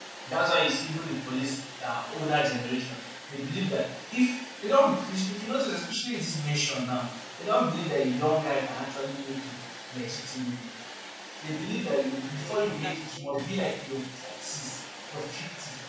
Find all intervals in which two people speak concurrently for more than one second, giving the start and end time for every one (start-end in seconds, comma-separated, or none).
11.7-13.4